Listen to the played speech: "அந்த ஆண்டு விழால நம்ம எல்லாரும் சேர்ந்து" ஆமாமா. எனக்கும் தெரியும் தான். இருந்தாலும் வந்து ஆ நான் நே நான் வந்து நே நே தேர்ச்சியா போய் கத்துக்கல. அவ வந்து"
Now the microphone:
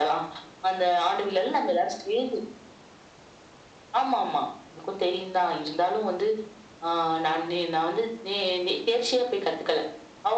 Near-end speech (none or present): none